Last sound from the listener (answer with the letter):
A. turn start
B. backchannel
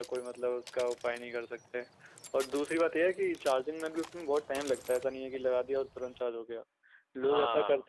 B